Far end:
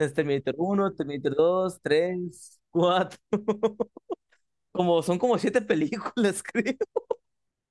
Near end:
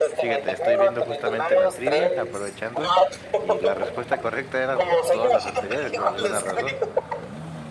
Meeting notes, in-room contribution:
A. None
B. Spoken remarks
B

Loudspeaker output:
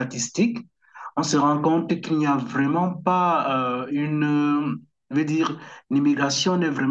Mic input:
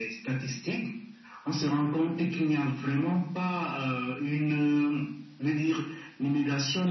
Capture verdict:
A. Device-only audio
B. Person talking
A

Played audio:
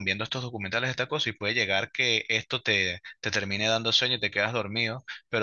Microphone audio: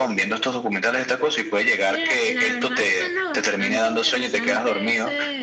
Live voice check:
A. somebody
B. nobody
A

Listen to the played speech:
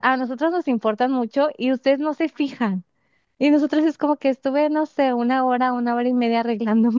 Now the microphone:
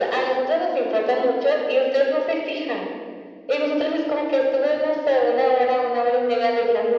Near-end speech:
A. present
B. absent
B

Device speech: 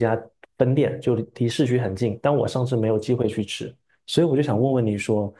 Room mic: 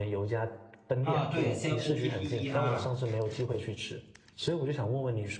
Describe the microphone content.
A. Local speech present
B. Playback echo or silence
A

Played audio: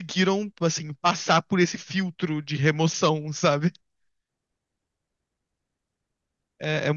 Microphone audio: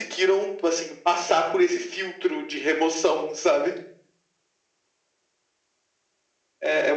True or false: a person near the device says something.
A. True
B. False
B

